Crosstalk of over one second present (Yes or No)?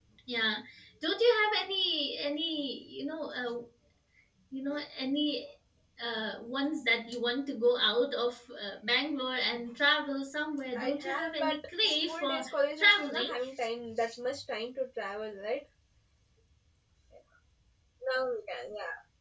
Yes